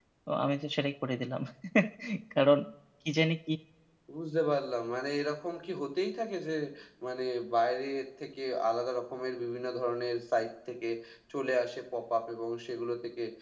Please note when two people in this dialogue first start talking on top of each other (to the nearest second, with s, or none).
none